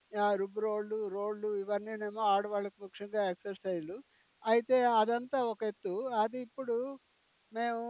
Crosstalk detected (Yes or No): No